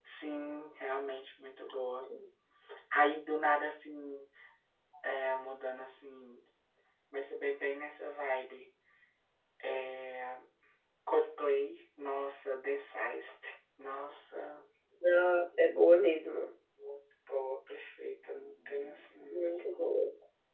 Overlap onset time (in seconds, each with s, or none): none